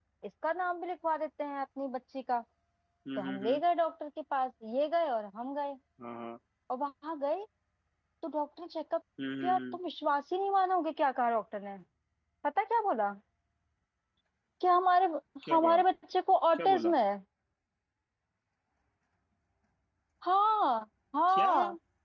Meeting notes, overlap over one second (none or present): none